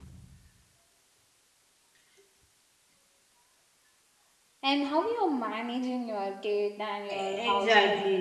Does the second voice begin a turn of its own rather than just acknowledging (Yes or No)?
Yes